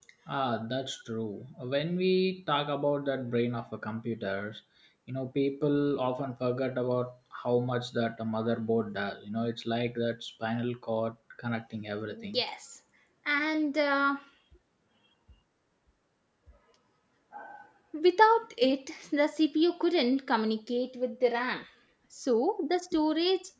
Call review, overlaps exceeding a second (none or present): none